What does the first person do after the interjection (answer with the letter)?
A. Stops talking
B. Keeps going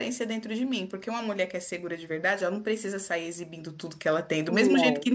B